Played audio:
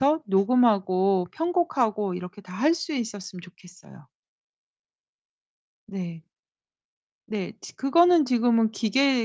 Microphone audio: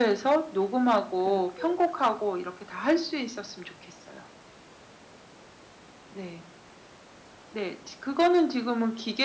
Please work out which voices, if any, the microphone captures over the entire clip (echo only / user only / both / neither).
both